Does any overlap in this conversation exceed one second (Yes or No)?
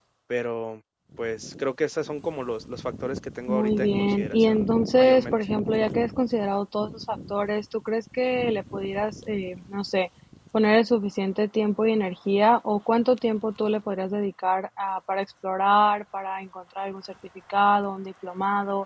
Yes